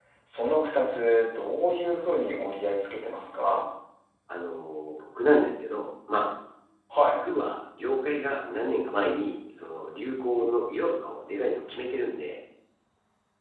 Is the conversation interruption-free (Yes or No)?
Yes